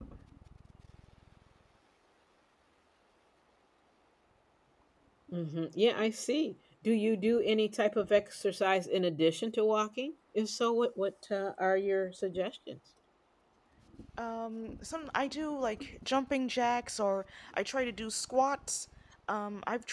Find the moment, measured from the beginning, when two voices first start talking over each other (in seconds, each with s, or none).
none